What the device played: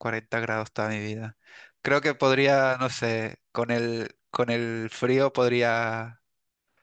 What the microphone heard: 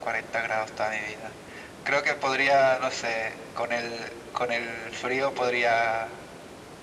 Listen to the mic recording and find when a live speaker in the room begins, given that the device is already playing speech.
none

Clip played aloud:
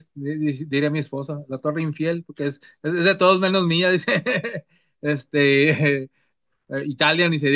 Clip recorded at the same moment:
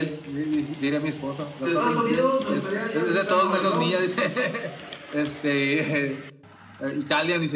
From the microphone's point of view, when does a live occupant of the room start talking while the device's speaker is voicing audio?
1.6 s

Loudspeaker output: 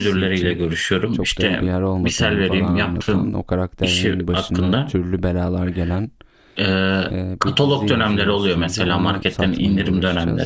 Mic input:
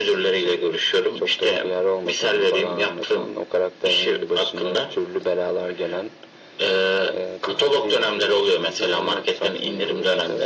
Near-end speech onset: none

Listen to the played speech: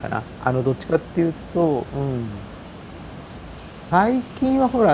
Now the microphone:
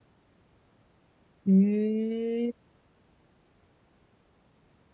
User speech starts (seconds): 1.4 s

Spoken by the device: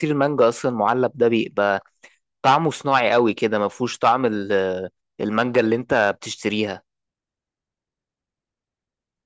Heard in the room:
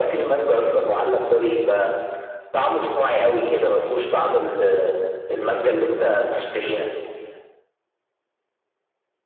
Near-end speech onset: none

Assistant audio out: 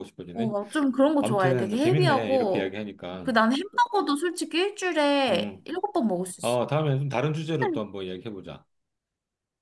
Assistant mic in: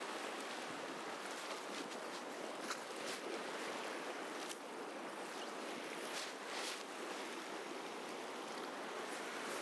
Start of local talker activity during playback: none

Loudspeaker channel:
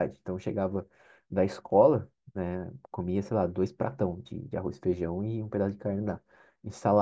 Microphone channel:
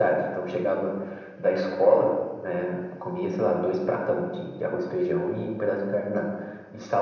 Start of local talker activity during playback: none

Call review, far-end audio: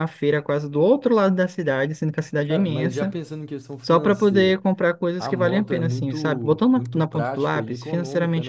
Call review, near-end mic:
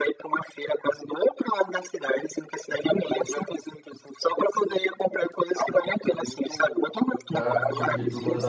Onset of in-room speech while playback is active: 7.3 s

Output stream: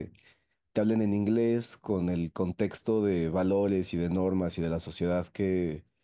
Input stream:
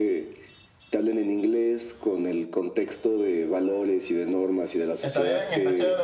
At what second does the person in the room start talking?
5.0 s

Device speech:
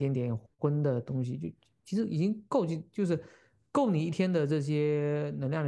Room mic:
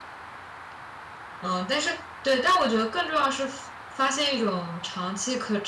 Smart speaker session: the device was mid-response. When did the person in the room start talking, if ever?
1.4 s

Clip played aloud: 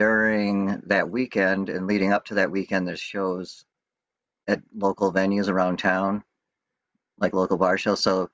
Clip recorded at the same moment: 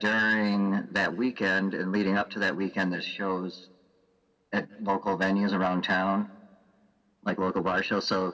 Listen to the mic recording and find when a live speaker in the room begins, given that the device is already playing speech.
none

